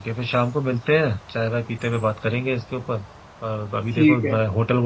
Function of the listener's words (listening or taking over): listening